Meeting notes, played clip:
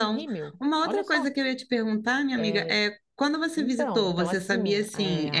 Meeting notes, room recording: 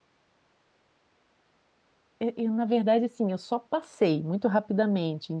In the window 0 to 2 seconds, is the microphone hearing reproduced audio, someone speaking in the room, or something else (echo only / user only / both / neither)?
neither